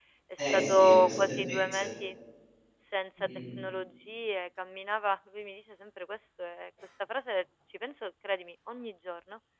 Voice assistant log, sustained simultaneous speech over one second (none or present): present